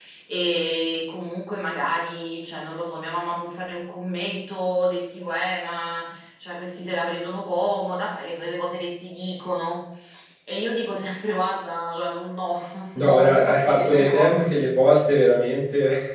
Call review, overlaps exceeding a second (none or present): present